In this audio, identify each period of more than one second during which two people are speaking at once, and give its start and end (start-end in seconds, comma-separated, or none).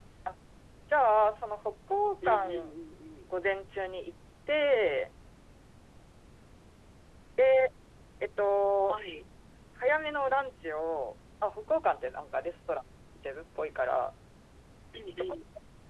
none